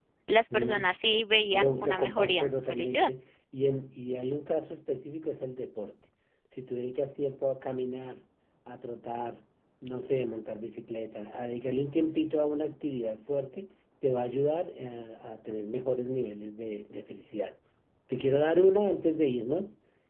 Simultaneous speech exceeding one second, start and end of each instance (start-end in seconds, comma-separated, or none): 1.5-3.1